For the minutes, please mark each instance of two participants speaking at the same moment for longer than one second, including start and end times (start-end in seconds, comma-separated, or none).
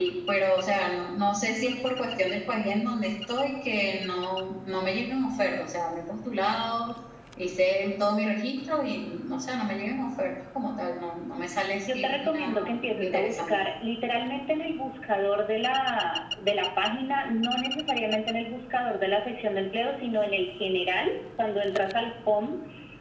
11.8-13.6